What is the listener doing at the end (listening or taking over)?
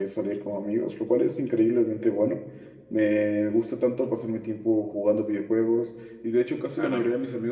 listening